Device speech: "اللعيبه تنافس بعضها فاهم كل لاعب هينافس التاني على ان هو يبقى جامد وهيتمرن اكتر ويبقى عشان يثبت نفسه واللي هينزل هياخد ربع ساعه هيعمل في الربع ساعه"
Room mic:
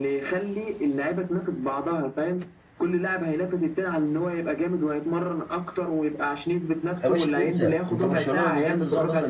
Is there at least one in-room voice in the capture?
Yes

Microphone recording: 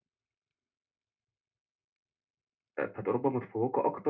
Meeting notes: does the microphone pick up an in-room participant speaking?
Yes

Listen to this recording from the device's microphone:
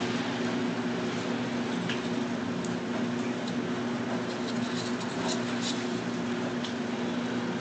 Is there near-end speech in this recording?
No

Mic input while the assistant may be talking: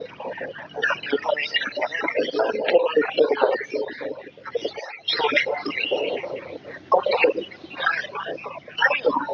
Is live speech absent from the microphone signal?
Yes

